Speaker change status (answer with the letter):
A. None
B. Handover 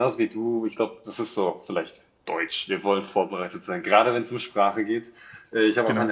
A